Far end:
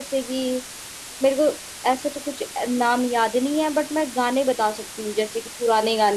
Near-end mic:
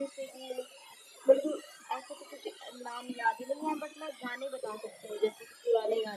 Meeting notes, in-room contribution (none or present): none